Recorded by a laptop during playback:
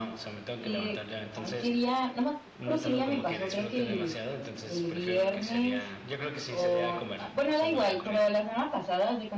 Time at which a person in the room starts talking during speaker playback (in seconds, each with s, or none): 0.5 s